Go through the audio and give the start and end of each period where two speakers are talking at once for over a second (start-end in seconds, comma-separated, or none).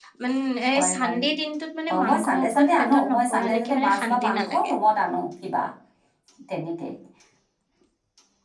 1.9-4.7